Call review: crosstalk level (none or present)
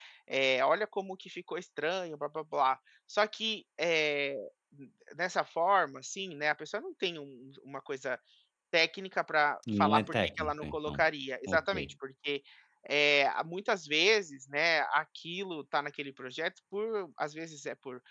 present